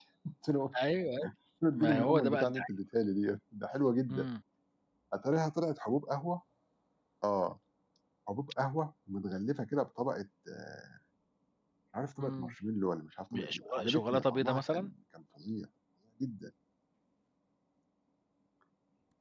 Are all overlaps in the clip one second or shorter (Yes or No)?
No